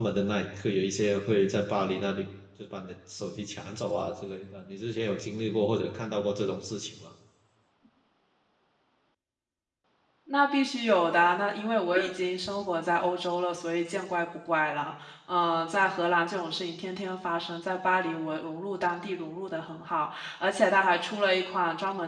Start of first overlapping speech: none

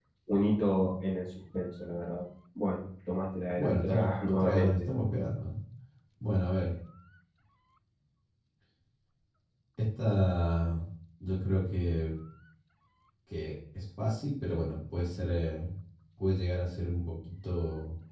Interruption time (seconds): 4 s

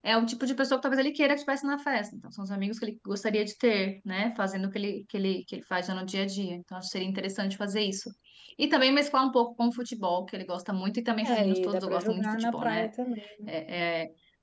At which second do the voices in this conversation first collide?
11 s

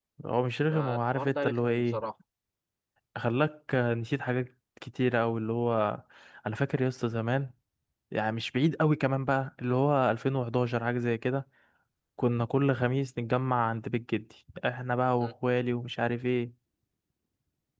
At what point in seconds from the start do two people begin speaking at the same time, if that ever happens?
1 s

